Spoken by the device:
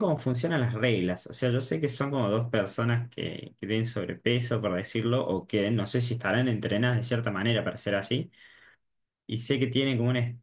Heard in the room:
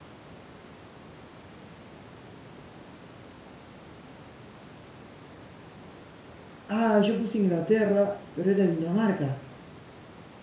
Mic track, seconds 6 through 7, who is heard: user only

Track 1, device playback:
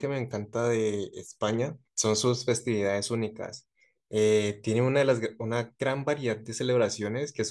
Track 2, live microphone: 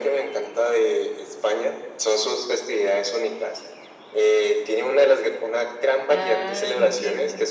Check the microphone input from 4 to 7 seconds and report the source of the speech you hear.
both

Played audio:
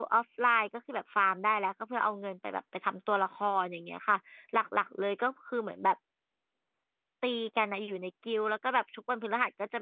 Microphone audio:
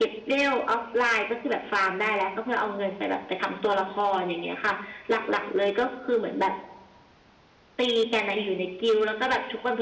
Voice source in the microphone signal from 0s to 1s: echo only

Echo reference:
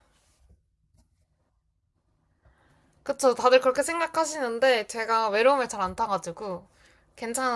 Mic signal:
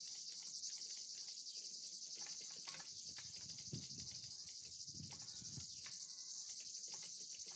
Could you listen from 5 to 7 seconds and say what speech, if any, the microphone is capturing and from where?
neither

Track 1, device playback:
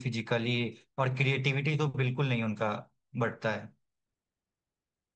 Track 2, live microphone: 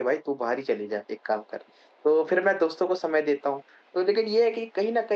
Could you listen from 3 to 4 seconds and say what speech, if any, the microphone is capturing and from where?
user only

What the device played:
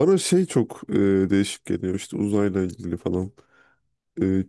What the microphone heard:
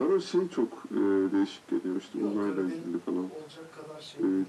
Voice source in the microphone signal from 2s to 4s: both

